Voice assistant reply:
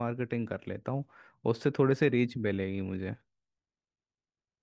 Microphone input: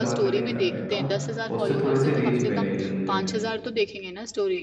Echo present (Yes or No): Yes